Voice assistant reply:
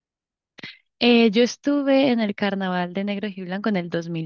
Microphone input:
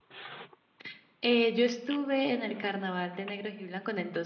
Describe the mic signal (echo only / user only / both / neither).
echo only